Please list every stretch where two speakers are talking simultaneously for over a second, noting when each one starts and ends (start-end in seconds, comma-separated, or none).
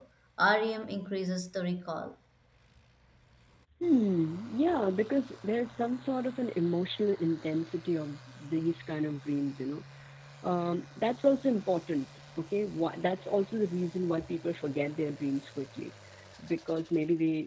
none